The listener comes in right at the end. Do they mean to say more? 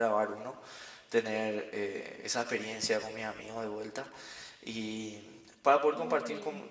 No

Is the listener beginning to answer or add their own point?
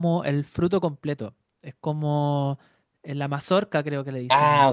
Yes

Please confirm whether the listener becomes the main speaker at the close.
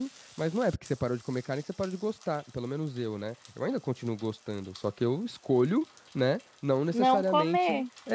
No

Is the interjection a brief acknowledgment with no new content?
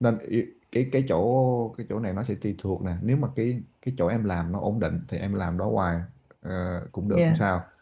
Yes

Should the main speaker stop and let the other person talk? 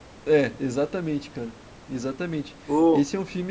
No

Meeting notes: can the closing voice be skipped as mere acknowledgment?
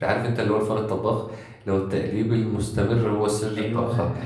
Yes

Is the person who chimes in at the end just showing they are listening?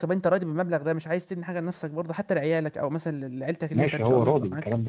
No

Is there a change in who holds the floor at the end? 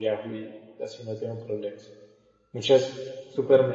No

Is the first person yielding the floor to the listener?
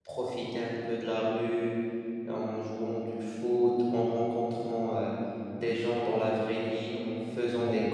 No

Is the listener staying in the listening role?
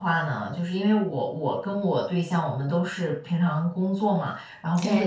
Yes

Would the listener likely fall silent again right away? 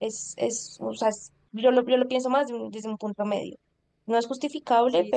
Yes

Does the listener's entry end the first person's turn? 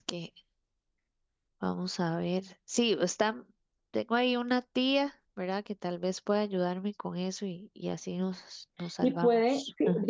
Yes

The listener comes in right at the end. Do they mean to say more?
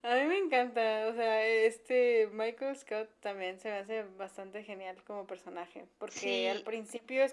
No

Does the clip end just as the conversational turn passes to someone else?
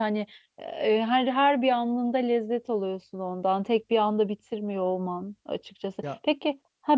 No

